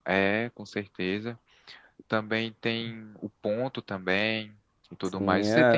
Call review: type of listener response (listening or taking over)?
taking over